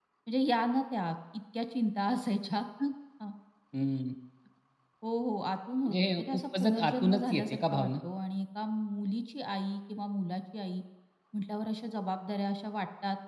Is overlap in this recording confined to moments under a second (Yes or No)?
No